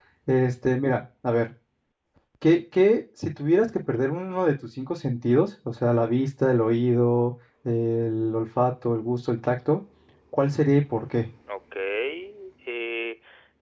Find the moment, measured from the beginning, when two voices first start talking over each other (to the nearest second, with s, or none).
none